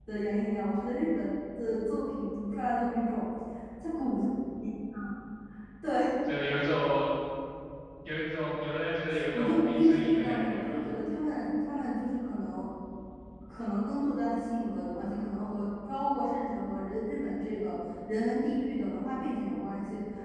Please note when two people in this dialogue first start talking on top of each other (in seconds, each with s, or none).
9.1 s